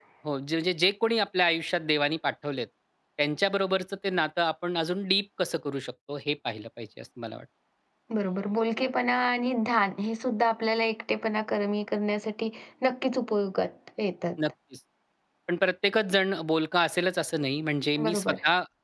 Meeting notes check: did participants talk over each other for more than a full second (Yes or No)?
No